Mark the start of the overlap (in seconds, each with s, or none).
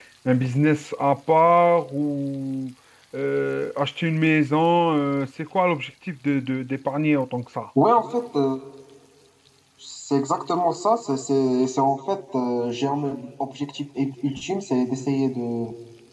none